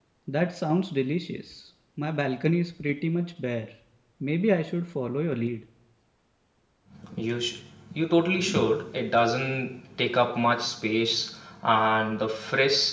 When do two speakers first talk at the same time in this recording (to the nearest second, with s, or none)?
none